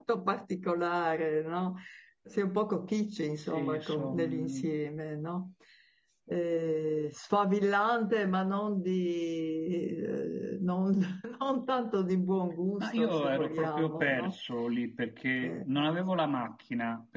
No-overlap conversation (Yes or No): No